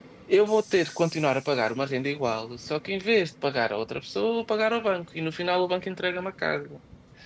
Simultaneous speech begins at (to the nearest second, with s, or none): none